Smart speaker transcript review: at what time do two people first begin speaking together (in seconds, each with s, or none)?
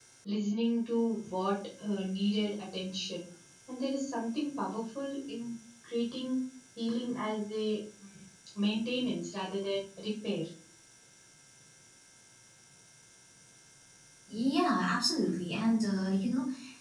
none